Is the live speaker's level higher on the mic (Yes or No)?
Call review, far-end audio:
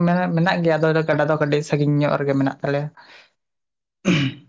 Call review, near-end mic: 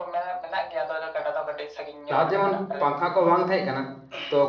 Yes